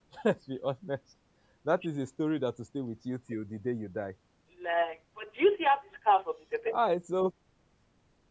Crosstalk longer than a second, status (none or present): none